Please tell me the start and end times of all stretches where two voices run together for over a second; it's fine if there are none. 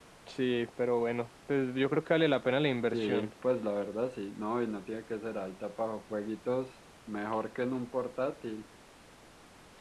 none

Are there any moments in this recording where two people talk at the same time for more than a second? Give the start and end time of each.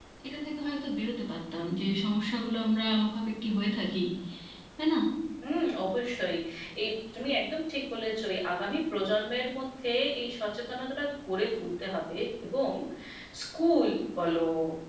none

